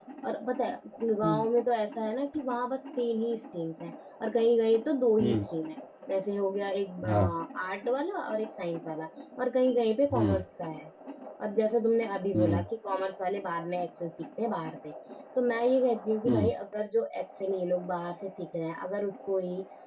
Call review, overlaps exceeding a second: none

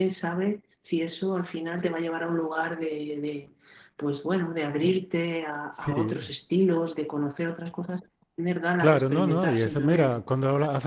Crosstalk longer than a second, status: present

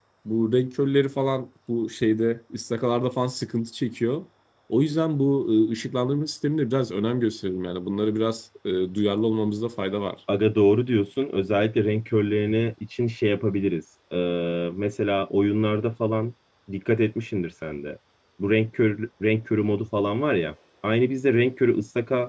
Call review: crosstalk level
none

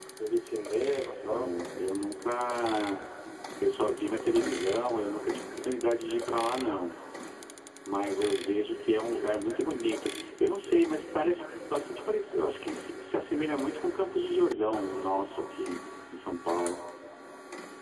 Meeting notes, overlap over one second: none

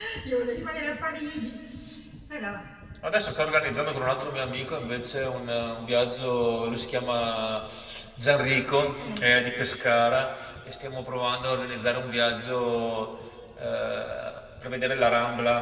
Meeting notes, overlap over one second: none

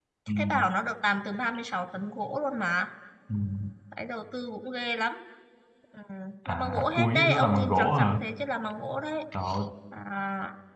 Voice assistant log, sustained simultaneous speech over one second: present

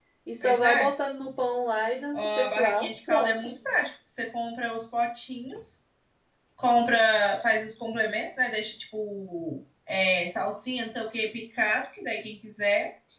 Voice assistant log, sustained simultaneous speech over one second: present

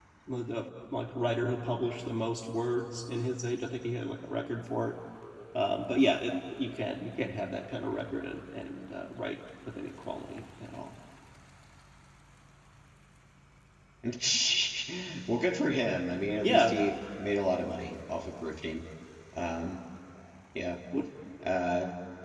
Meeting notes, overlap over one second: none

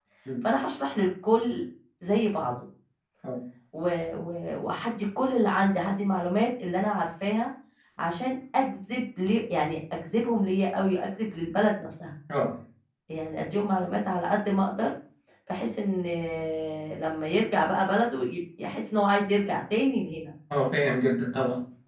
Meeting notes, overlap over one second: none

